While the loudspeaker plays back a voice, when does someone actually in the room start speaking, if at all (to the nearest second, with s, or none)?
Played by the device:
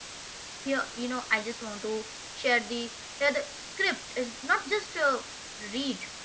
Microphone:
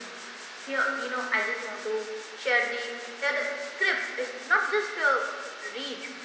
none